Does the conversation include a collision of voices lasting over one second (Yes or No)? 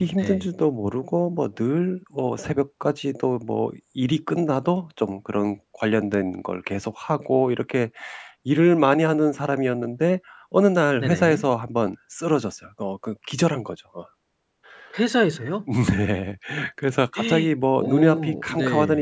Yes